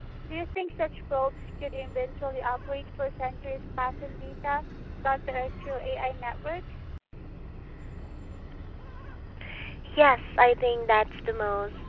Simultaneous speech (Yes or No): No